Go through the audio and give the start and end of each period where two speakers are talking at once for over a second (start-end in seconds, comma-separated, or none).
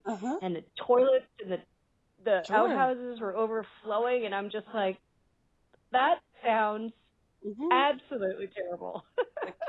none